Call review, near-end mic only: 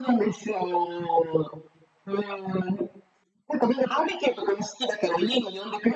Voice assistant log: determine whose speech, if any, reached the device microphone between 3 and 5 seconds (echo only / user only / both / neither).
echo only